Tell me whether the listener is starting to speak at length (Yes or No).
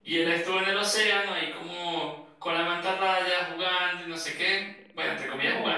No